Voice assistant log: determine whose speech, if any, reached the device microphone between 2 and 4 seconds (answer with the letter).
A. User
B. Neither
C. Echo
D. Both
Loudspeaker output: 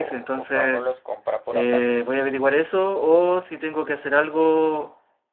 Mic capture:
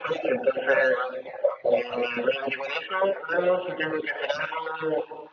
C